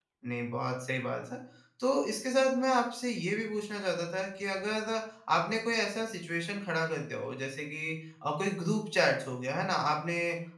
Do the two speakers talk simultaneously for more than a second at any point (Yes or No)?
No